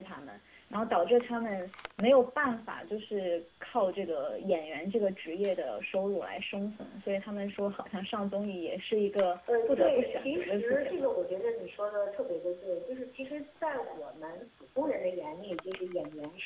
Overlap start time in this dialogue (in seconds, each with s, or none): 9.5 s